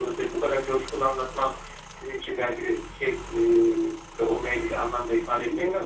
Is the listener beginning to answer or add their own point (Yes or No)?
Yes